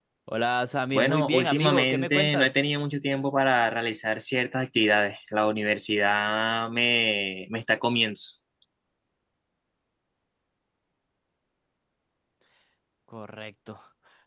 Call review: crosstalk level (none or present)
present